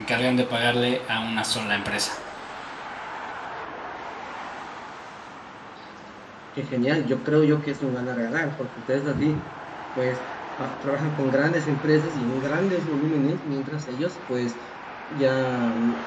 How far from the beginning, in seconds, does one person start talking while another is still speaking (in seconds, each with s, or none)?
none